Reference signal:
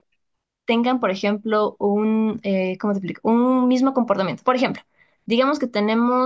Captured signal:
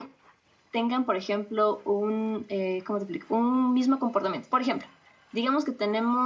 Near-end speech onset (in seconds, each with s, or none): none